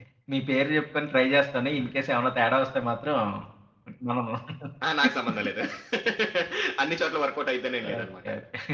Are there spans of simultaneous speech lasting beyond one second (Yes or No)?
No